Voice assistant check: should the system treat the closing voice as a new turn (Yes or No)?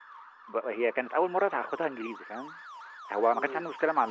No